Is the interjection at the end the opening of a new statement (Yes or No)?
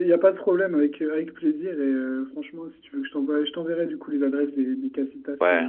No